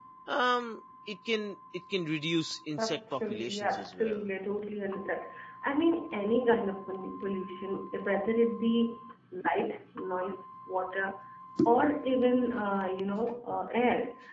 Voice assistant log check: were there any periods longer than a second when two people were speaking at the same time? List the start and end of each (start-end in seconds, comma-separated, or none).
2.8-4.2